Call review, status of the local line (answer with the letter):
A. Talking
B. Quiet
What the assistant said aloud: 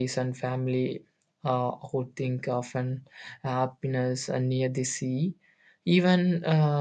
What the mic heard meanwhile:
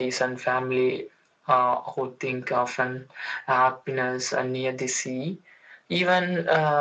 B